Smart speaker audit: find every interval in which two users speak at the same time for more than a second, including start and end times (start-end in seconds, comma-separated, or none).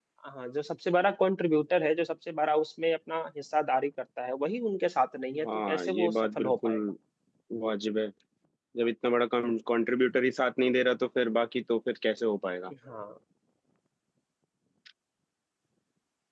5.5-6.8